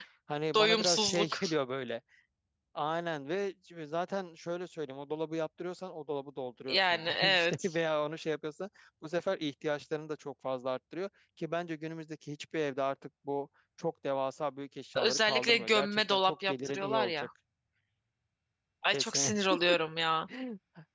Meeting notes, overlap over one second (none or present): present